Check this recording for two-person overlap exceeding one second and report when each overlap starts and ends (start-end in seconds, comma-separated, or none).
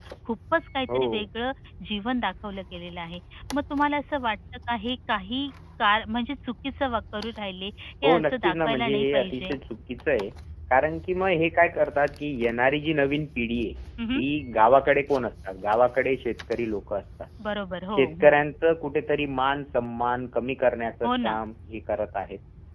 8.0-9.6